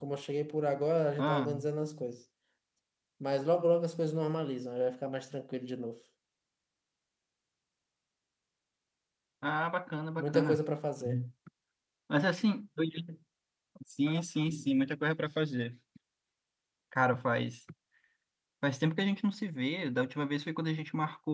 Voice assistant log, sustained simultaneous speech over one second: none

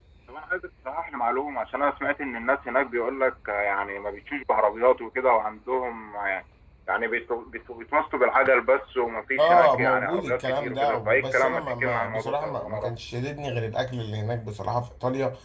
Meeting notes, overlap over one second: present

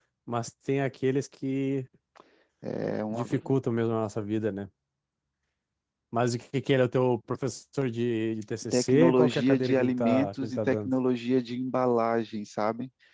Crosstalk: present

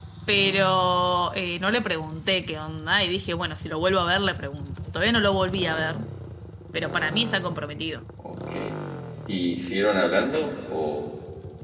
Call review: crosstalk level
none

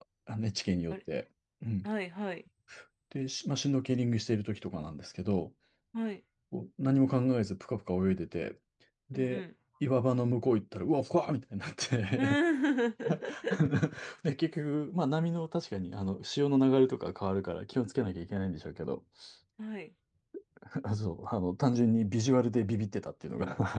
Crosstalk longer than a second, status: none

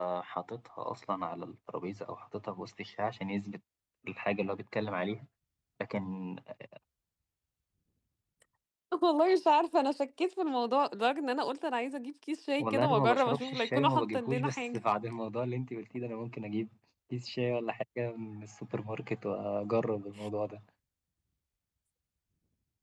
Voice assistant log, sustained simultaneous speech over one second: present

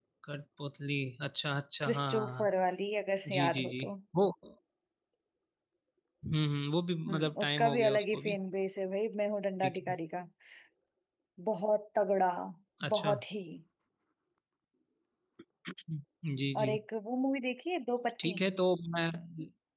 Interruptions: present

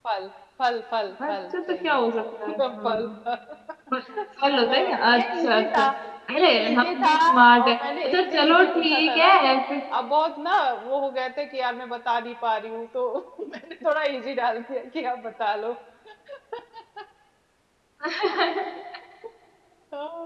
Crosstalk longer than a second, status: present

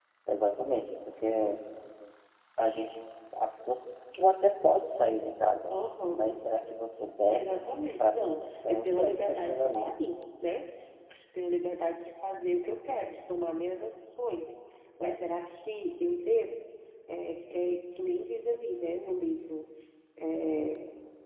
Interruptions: present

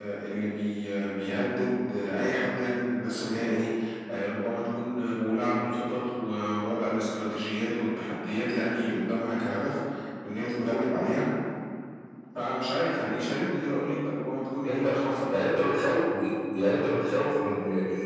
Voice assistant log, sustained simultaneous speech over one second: none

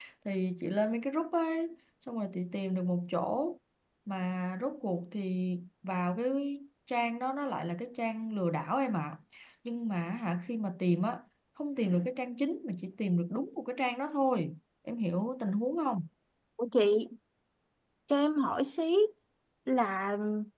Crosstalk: none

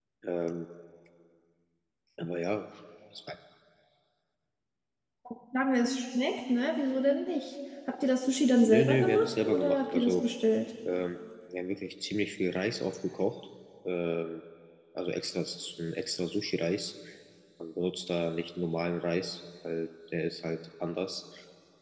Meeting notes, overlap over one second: present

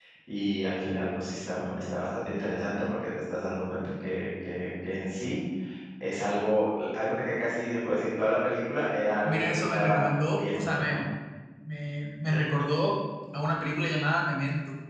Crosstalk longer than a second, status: present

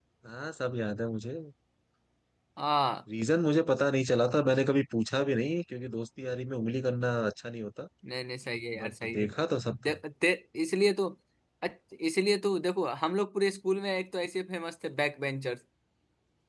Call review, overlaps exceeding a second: none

